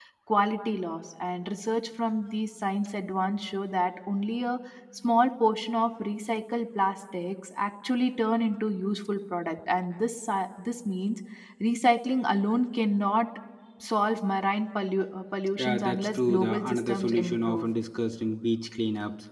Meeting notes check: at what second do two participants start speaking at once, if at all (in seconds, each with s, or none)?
15.6 s